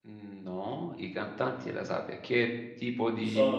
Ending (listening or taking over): taking over